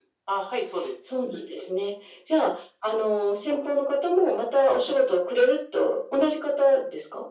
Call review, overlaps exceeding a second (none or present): none